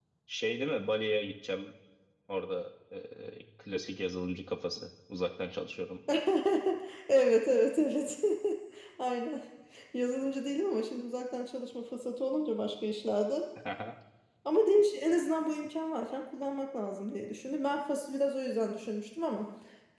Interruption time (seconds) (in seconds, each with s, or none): none